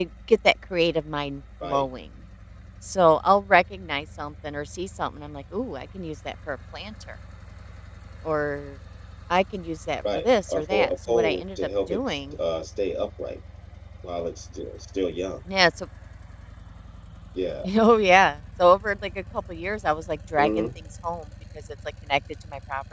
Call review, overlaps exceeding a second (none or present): present